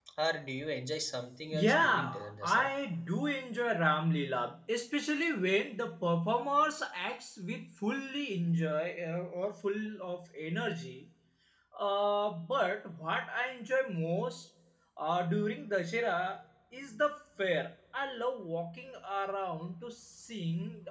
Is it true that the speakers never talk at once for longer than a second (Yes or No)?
No